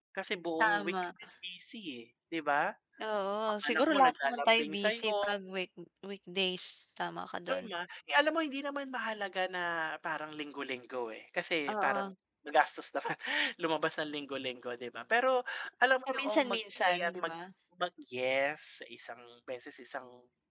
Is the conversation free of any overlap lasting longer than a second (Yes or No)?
No